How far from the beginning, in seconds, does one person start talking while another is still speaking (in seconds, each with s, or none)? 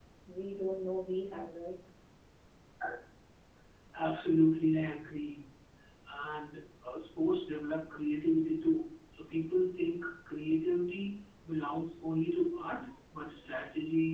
none